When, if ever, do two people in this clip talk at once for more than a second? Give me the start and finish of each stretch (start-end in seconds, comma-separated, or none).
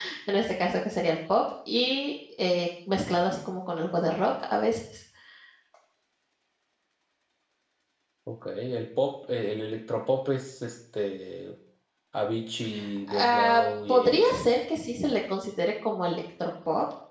13.1-14.4